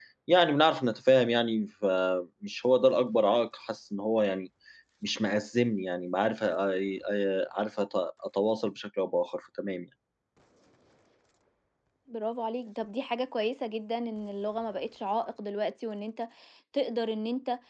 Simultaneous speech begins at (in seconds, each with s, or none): none